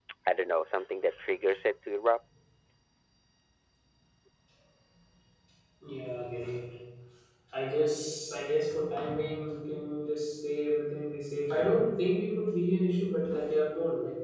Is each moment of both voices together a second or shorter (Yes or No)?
Yes